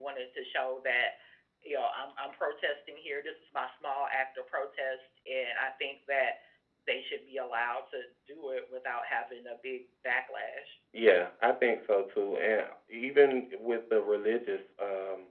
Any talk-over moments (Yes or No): No